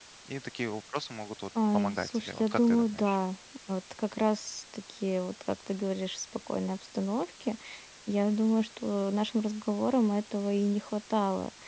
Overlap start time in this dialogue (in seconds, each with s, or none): 1.6 s